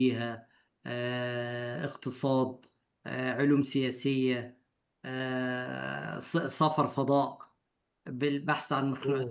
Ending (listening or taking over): listening